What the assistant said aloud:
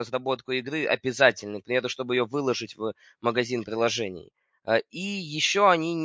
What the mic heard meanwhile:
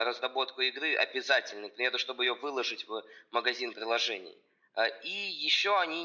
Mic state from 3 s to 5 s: echo only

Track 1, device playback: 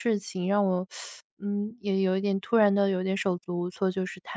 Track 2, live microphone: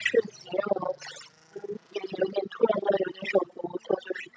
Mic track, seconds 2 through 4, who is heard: echo only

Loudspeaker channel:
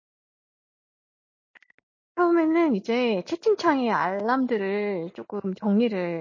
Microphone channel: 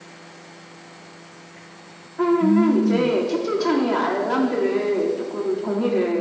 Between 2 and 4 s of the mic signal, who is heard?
both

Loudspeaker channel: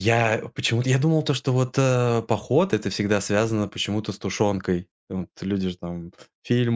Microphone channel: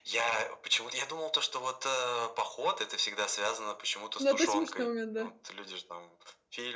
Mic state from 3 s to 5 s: both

